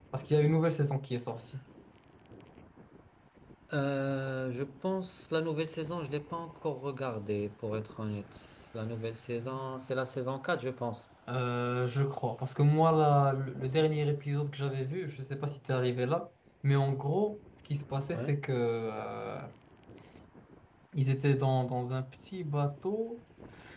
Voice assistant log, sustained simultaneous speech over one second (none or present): none